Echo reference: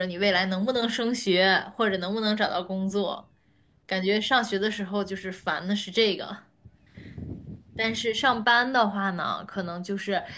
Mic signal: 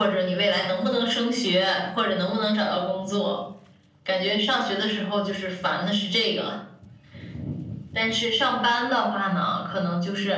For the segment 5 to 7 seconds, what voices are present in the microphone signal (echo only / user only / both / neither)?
echo only